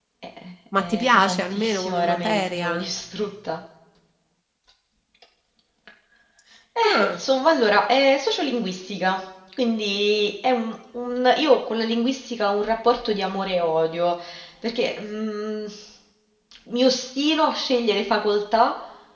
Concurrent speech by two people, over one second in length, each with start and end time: 0.8-2.9

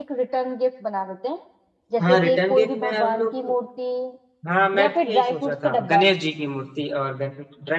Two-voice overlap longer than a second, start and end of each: 2.1-3.3, 4.8-6.0

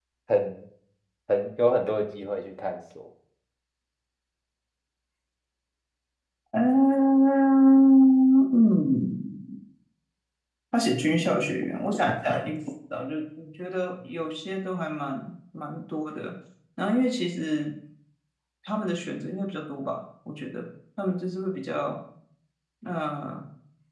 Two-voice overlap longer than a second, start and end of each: none

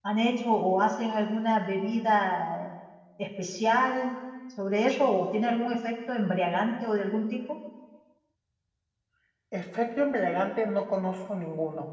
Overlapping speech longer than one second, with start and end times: none

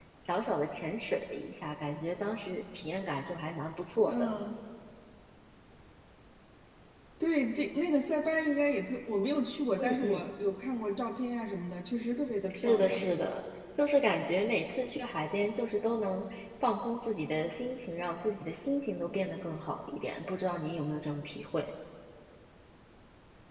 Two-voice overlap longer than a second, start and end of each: none

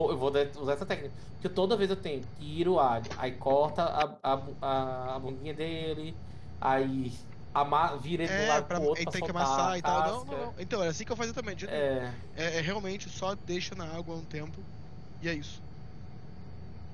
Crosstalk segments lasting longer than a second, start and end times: 8.2-10.5

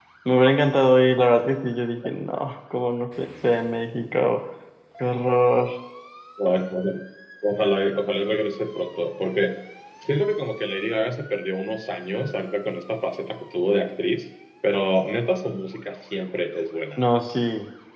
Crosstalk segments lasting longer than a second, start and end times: none

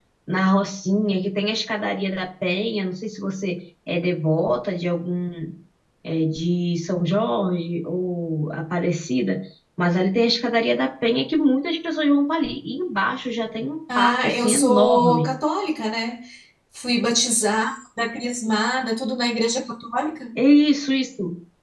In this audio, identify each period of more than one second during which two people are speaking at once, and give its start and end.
13.9-15.3

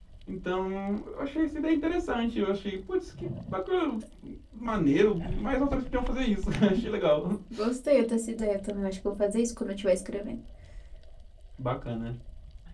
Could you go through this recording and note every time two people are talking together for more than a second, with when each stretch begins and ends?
none

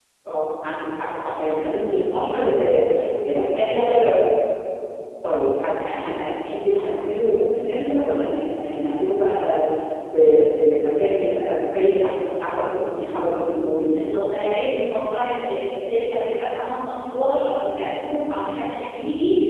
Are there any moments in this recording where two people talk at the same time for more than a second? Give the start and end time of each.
none

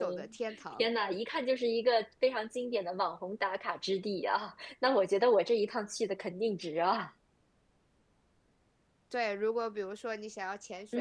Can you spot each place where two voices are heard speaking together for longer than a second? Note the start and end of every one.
none

